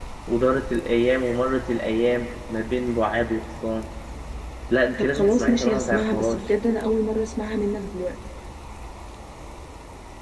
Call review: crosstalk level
present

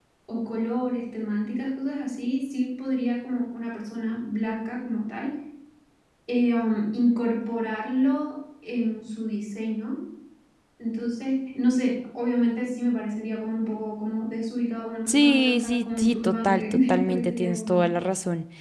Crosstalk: present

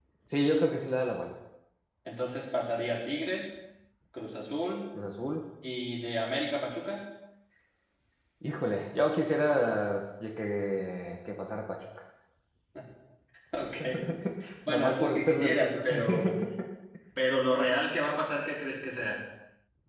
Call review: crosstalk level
present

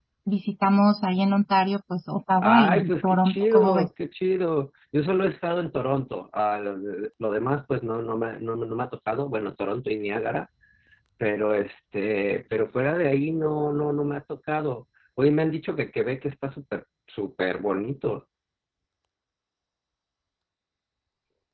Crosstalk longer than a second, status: present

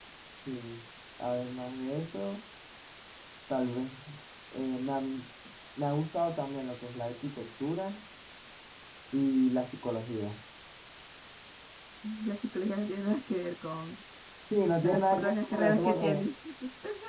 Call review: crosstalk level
present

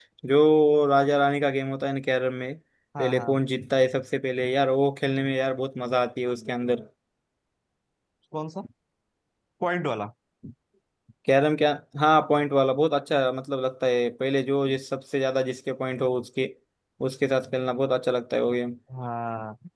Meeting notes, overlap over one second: none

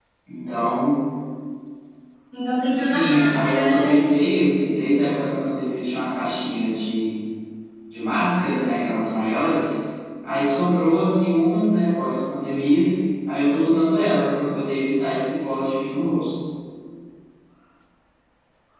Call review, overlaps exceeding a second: present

